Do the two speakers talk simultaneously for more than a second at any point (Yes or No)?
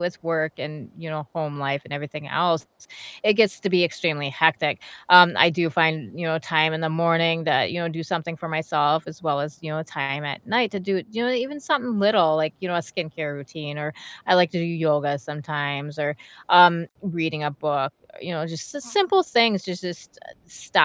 No